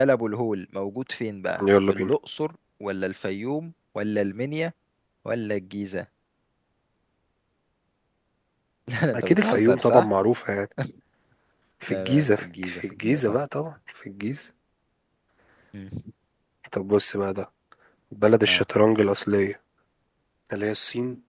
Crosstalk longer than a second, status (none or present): present